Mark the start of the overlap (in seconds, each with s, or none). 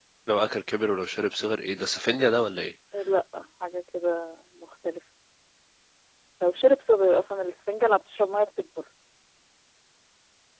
none